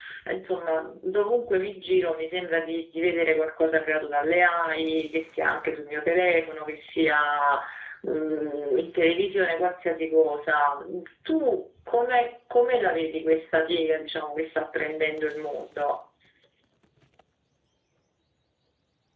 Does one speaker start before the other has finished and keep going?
No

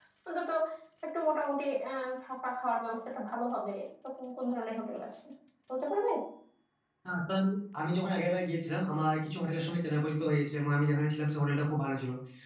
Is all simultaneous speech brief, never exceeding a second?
Yes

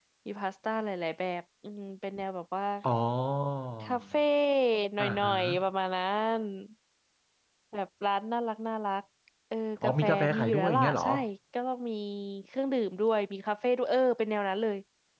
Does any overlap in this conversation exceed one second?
Yes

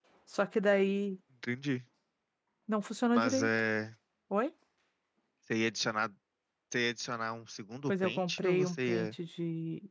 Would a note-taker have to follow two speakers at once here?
Yes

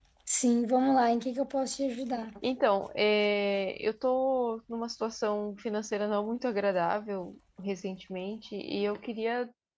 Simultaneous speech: No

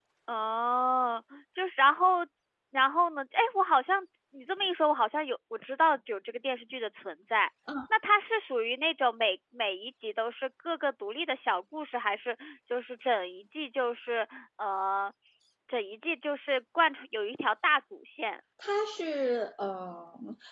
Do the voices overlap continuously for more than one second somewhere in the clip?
No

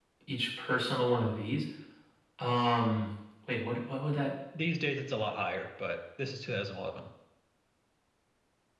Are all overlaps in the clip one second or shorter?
Yes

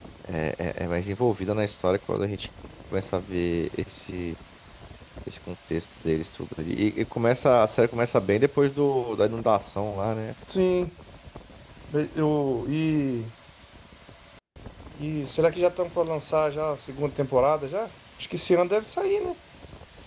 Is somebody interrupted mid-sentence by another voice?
No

